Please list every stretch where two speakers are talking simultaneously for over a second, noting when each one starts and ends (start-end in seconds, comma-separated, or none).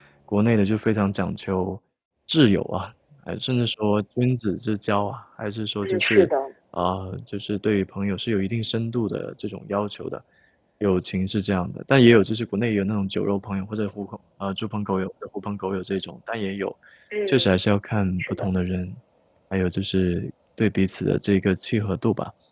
none